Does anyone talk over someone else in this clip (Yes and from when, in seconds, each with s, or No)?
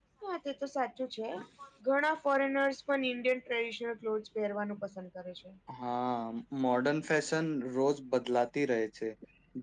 No